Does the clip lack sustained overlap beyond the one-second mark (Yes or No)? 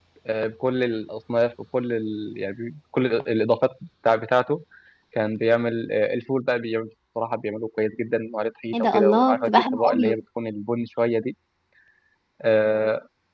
No